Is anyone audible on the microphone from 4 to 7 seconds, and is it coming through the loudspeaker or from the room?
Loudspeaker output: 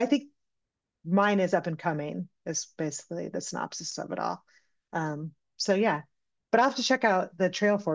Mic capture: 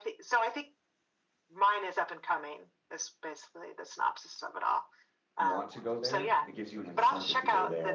both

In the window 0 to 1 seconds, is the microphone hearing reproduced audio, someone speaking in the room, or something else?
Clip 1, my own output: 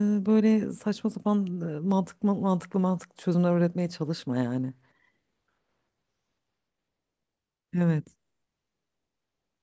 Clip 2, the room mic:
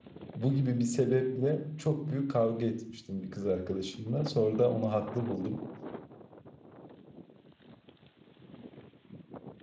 user only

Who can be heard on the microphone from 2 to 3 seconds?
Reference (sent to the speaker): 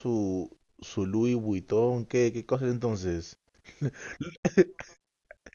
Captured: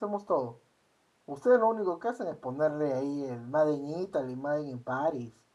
user only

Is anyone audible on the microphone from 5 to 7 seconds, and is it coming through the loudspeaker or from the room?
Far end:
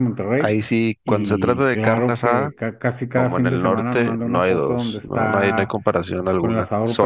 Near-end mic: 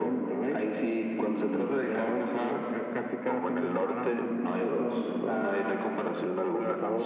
echo only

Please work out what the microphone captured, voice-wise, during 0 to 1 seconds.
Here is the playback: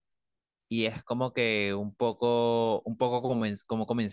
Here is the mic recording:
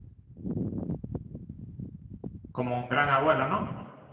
neither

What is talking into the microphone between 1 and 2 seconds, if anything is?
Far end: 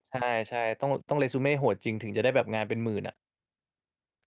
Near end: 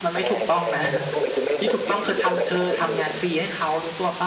both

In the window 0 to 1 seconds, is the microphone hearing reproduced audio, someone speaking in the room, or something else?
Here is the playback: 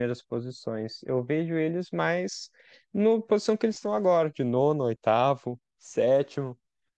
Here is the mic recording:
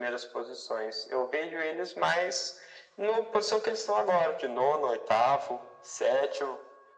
echo only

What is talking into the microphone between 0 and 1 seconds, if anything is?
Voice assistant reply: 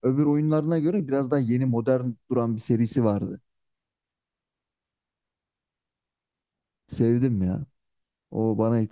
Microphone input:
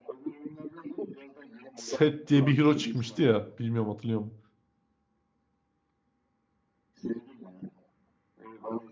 echo only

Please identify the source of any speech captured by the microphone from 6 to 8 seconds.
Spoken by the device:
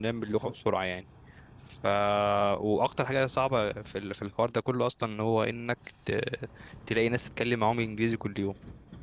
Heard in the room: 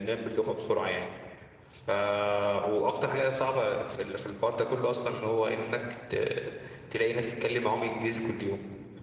echo only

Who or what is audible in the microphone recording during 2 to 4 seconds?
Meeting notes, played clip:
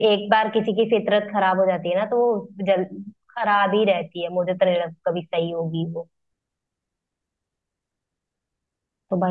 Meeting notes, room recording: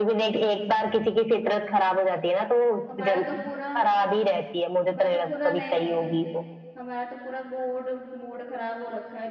both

